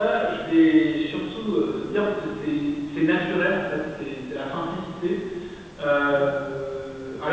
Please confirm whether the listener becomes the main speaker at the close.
No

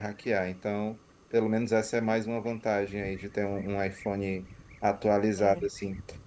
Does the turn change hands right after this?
No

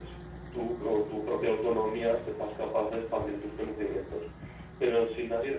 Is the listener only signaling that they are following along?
Yes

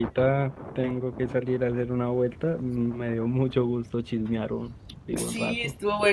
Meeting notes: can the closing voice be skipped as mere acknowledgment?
No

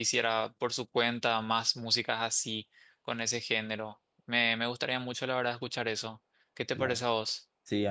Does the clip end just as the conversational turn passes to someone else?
Yes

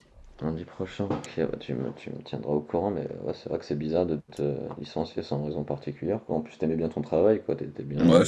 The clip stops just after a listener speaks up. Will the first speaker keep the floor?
No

